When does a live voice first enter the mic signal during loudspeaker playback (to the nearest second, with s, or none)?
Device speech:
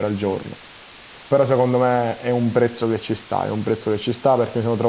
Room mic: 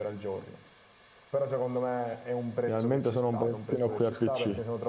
3 s